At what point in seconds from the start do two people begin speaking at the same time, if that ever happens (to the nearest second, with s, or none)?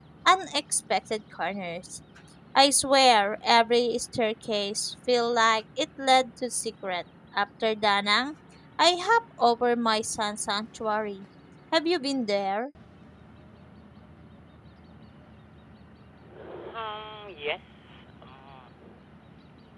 none